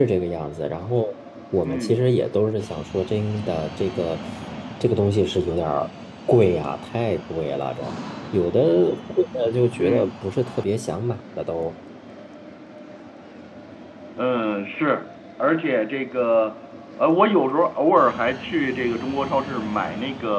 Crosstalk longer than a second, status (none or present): none